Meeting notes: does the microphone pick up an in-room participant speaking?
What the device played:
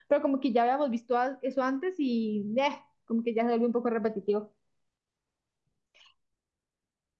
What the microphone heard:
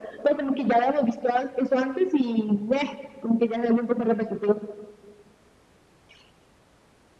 No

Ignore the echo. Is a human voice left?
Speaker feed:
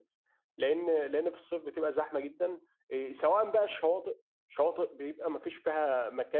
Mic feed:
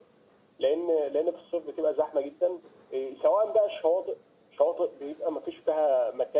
No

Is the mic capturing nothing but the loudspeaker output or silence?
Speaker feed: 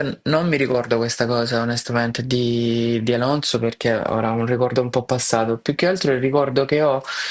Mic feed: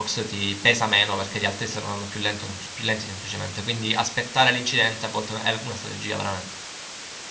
No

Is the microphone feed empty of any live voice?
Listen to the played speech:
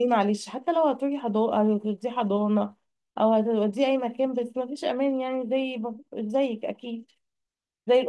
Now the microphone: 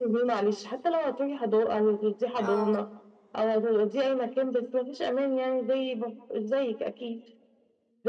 No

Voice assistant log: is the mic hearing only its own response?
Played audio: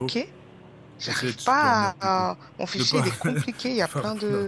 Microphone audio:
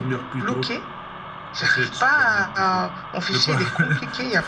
Yes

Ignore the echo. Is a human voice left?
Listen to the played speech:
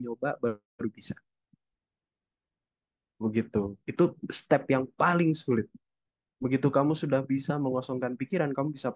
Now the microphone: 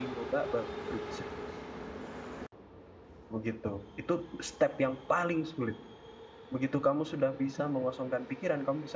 No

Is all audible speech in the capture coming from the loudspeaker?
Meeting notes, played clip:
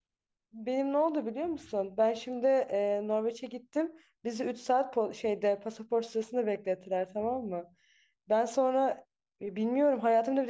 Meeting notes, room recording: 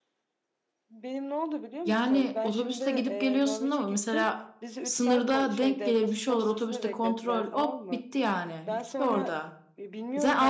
No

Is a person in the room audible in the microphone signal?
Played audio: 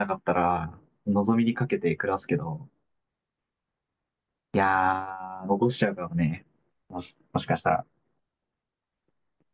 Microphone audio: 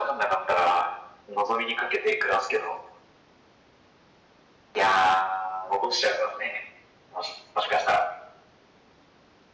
No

